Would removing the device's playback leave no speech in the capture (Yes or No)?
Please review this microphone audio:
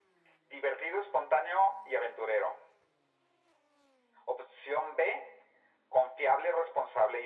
Yes